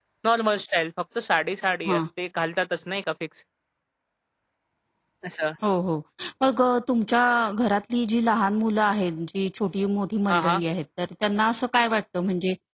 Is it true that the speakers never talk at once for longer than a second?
Yes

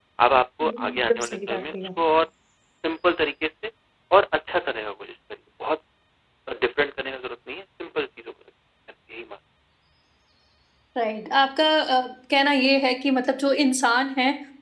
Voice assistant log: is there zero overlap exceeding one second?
No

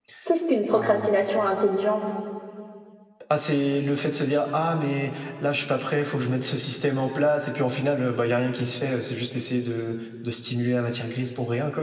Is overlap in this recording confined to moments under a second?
Yes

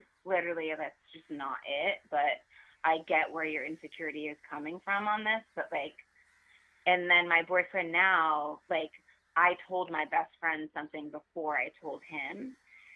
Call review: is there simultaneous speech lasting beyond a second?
No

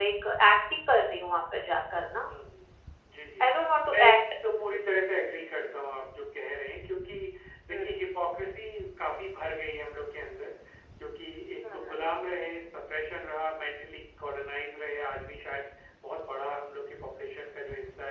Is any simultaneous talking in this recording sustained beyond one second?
No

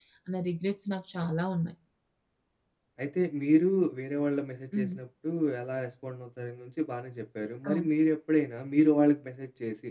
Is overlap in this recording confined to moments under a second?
Yes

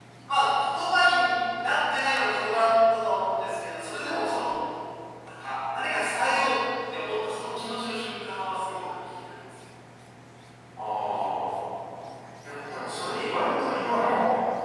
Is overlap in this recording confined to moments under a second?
Yes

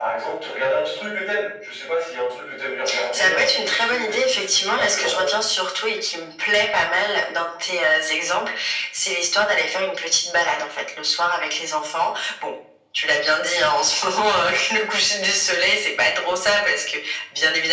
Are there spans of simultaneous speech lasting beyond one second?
Yes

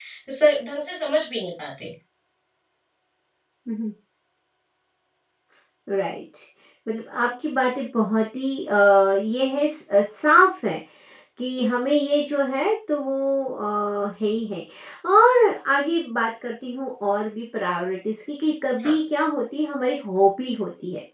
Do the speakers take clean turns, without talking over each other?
Yes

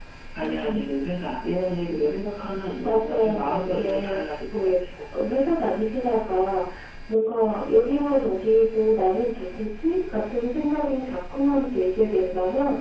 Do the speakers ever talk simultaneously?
Yes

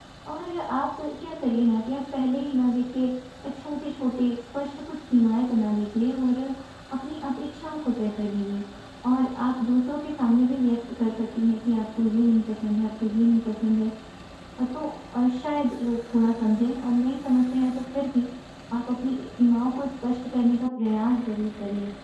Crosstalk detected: No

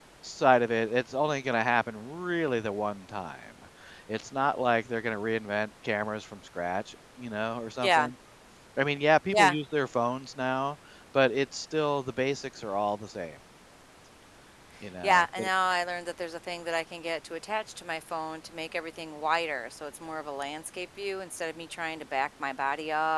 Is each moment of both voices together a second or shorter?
Yes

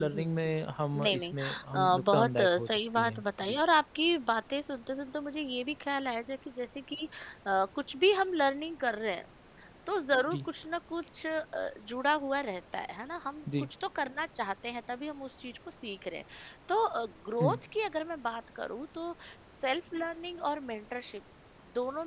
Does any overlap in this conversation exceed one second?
Yes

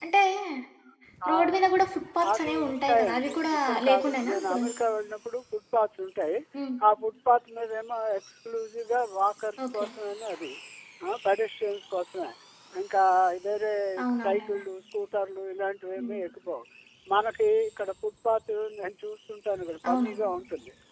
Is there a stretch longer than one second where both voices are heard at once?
Yes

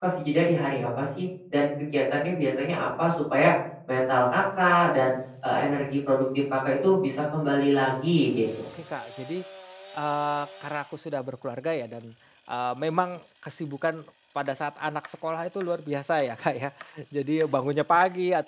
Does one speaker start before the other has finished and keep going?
No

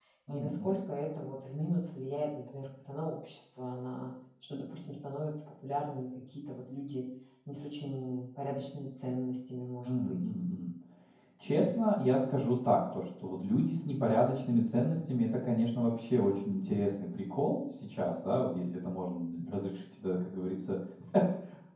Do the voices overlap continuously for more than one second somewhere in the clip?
No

